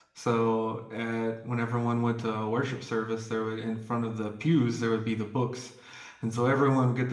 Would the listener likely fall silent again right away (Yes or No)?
Yes